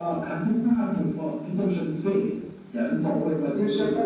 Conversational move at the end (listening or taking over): taking over